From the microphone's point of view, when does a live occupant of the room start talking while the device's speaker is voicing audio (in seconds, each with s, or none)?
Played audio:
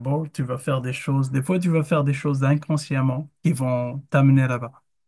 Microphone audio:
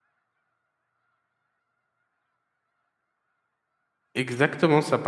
4.2 s